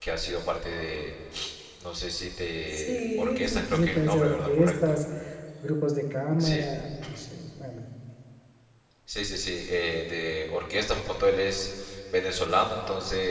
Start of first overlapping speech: 3 s

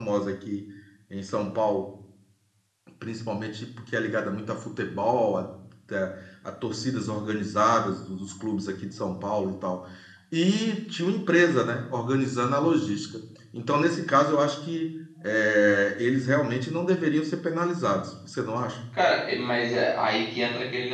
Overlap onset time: none

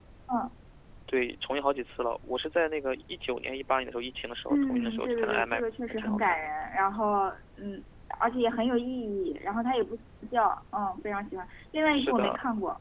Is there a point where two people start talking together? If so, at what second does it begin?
4 s

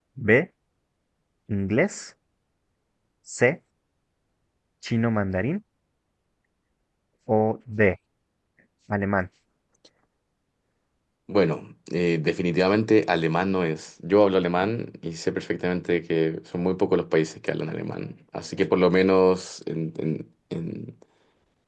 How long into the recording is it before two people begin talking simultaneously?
none

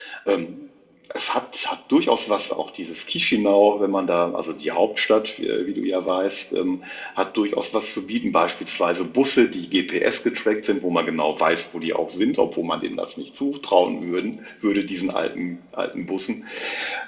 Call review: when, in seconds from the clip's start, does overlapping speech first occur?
none

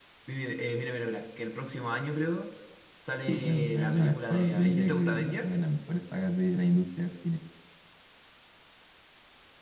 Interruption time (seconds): 3 s

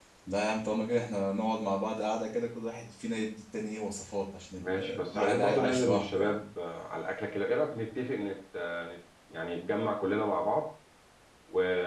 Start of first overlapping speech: 5 s

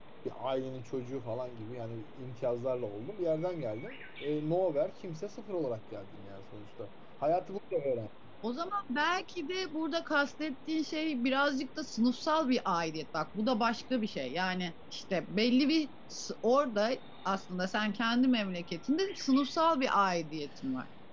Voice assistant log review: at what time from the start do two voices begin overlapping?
none

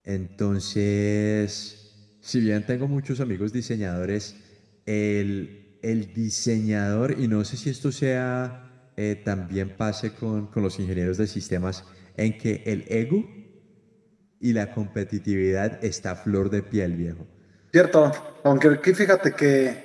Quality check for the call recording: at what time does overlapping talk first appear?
none

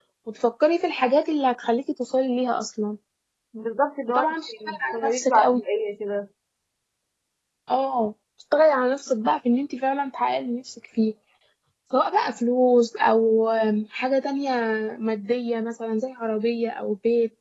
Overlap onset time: 4 s

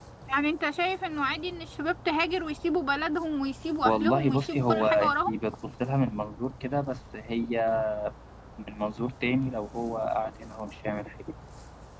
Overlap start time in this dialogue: 4 s

